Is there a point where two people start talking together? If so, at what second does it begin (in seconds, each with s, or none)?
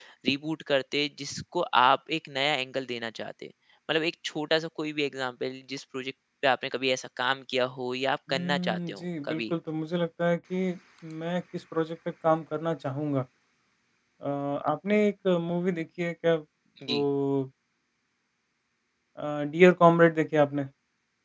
8.3 s